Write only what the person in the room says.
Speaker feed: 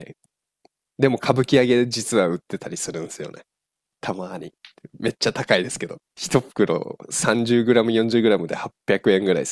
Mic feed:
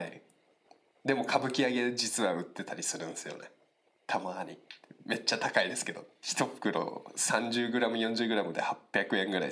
none

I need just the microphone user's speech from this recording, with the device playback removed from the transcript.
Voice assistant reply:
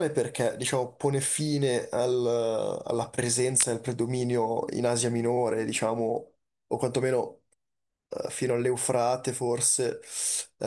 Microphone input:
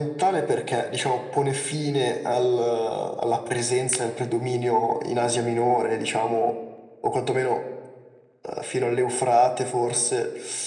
none

